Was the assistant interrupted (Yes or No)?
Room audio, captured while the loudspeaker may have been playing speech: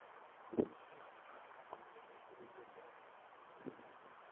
No